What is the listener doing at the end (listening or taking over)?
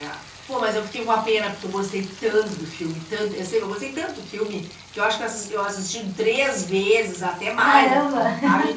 listening